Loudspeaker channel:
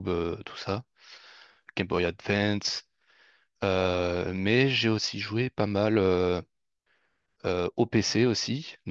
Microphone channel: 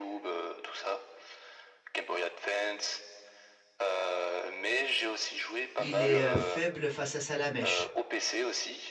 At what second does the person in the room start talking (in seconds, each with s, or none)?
5.8 s